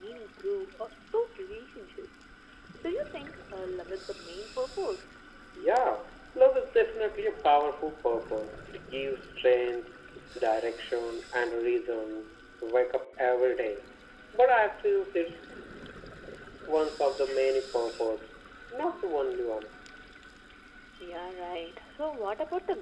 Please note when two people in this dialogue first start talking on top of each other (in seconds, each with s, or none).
none